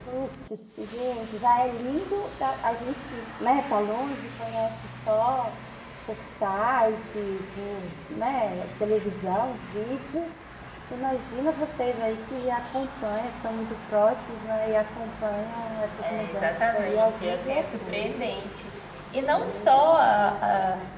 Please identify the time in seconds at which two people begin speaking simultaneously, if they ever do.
16.0 s

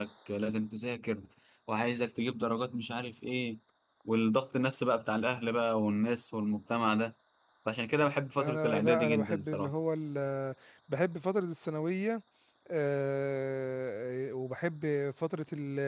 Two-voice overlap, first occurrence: 8.4 s

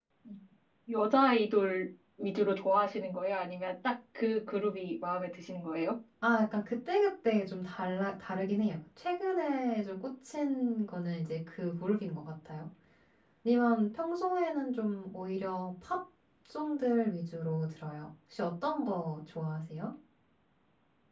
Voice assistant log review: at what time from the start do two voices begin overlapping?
none

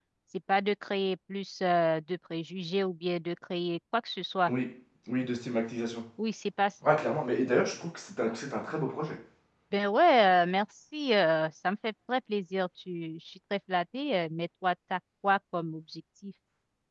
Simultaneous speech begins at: none

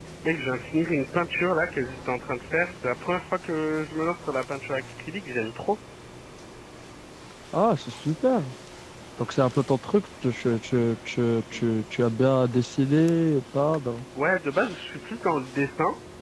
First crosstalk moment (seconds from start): none

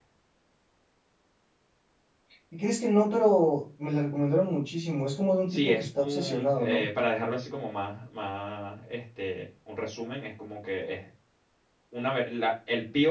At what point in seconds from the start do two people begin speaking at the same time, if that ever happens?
5.5 s

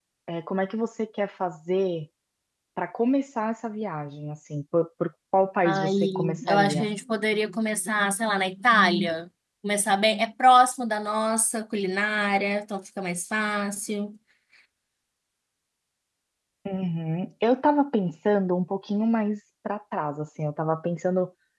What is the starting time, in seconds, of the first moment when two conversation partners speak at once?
5.6 s

